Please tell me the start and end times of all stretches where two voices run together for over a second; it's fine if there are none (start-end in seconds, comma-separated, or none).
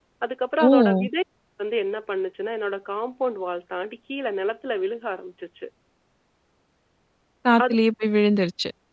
none